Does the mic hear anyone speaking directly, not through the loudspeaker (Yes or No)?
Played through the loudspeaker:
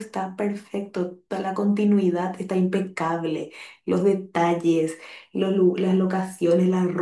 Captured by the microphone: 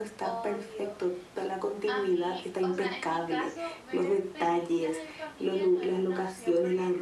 Yes